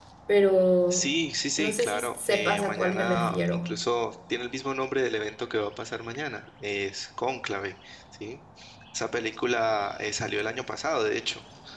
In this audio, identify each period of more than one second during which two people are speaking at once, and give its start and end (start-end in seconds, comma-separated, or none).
1.6-3.8